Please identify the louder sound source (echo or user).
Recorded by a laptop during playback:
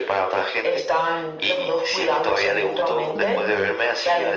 echo